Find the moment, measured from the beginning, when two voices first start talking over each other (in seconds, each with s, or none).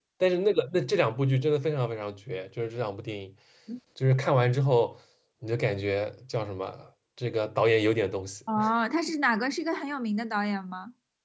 none